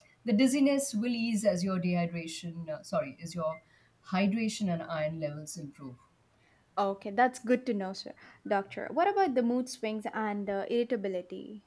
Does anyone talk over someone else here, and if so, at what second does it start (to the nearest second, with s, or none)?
none